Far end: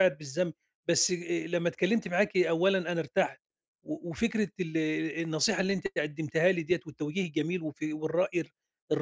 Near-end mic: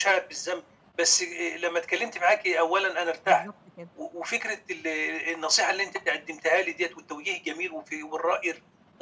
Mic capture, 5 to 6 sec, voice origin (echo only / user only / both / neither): echo only